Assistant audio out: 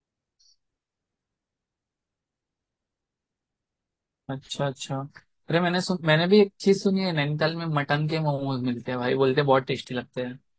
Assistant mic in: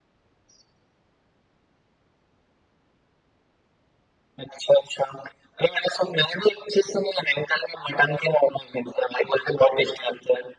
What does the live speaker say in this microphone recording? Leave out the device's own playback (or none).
none